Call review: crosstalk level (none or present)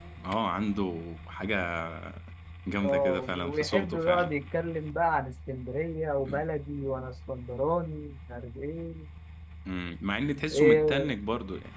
present